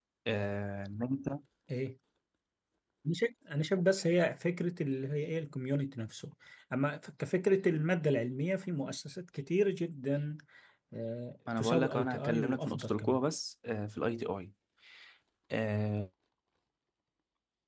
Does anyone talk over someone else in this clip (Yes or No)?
Yes